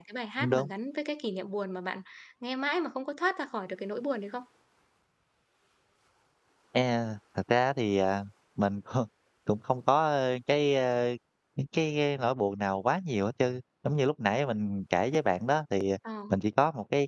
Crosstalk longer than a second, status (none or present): none